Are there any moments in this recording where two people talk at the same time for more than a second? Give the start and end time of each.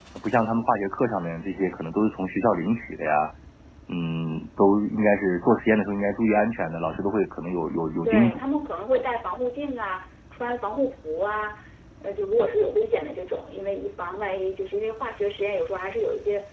none

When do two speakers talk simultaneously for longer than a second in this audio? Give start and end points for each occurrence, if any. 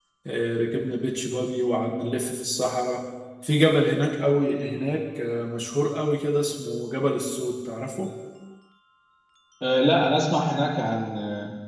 none

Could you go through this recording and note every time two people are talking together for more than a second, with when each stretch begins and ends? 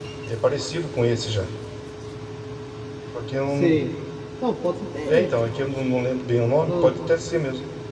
none

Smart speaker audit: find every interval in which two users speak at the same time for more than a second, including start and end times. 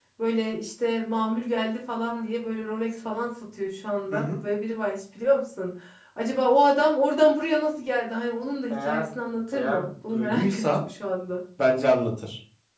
9.5-10.8

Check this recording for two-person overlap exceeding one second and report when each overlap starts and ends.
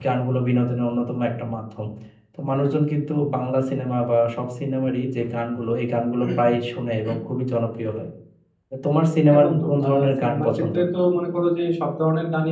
9.3-10.7

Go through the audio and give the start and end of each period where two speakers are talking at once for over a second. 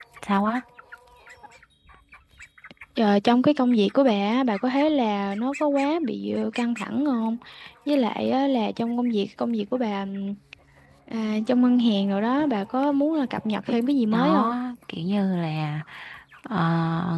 none

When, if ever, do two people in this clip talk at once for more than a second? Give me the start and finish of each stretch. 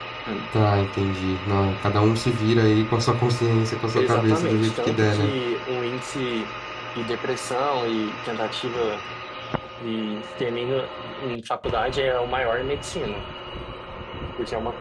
4.0-5.3

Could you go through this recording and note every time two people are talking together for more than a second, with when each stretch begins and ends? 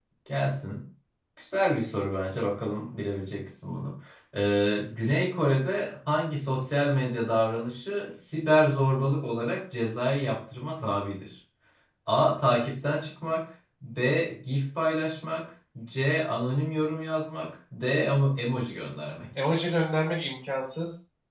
none

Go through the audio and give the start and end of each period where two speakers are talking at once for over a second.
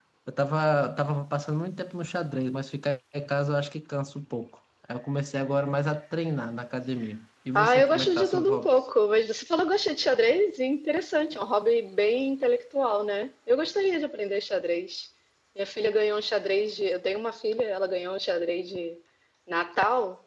7.6-8.8

